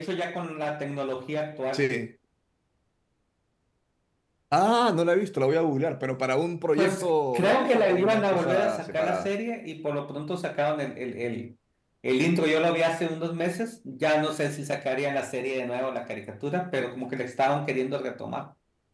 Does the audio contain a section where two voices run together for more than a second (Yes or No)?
Yes